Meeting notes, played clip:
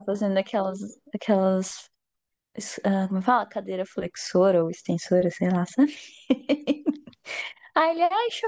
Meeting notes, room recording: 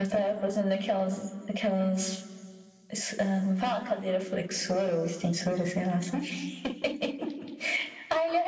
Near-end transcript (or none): none